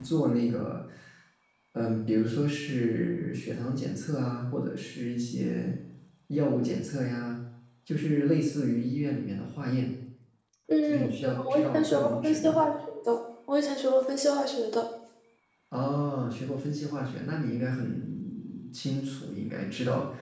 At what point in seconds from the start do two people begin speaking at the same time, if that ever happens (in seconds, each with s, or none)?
10.9 s